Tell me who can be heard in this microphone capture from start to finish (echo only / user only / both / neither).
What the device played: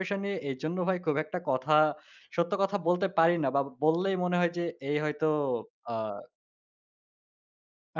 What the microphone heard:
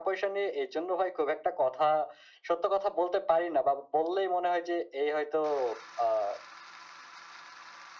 echo only